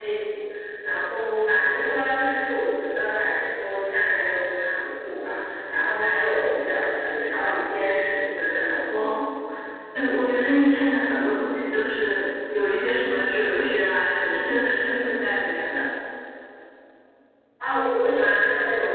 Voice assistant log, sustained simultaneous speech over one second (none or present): none